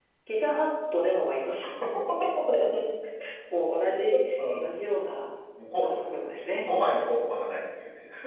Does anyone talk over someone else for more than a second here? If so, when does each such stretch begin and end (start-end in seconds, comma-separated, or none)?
none